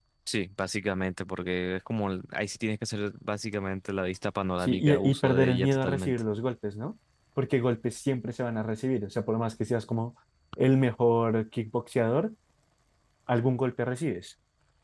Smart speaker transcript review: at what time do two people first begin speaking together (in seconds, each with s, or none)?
4.6 s